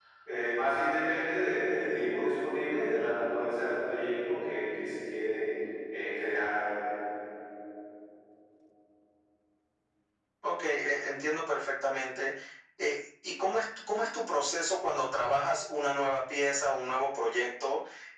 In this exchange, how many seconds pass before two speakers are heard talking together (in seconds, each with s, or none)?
none